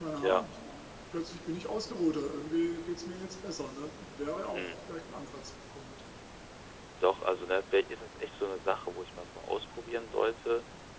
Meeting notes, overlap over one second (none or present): none